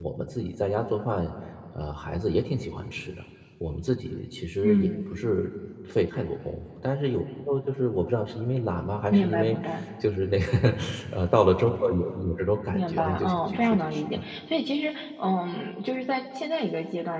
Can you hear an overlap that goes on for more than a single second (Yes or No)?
Yes